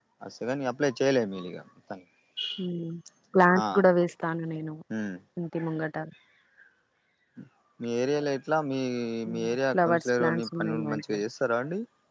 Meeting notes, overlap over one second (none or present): present